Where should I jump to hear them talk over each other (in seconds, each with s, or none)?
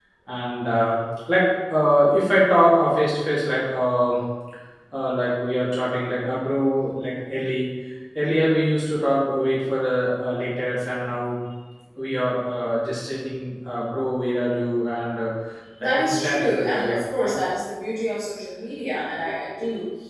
15.8 s